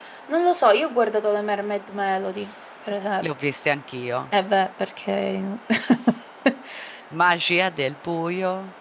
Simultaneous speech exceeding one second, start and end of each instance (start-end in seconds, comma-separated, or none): none